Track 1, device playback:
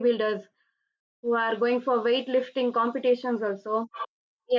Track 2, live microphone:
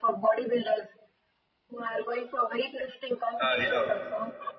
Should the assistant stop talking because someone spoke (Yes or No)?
Yes